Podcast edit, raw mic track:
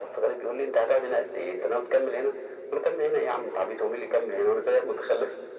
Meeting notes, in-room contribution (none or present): none